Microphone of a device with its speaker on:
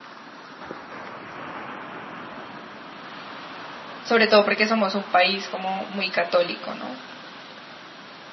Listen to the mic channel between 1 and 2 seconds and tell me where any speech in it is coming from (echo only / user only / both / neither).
neither